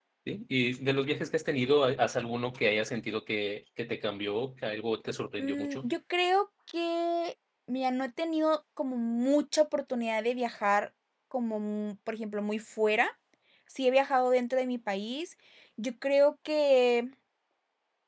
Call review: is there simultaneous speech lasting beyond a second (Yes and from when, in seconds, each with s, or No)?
No